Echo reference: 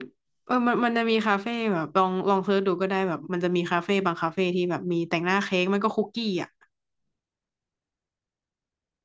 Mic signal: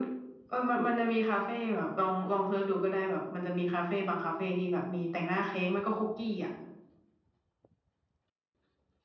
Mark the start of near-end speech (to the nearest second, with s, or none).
none